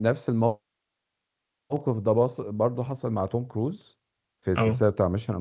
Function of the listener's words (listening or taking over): listening